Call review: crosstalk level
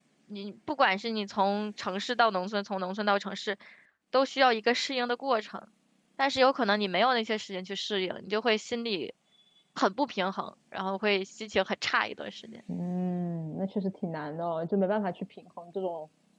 none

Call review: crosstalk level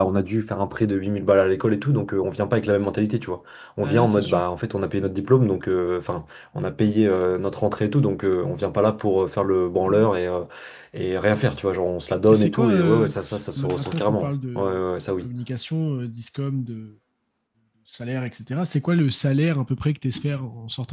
present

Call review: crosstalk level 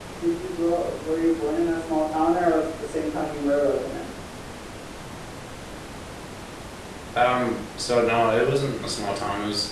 none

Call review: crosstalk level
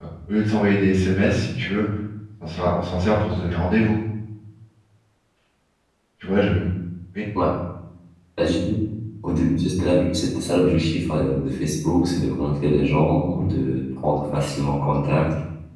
none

